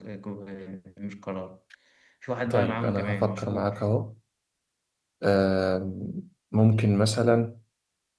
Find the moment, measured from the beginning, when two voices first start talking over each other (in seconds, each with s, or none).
2.5 s